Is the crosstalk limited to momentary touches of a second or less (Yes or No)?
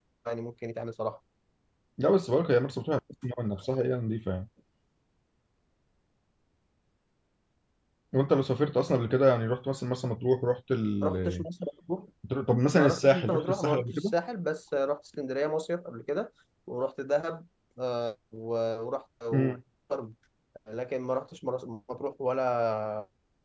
No